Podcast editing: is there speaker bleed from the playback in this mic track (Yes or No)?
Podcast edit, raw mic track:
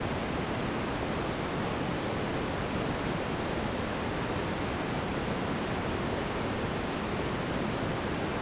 No